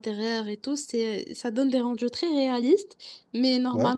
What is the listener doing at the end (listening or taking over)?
listening